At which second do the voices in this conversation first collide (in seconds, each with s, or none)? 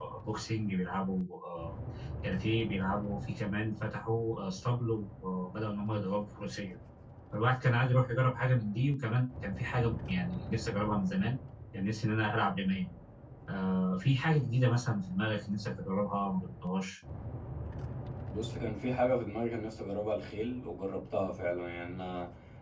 none